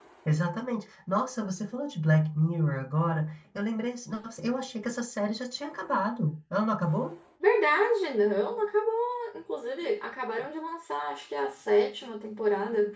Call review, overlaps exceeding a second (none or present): none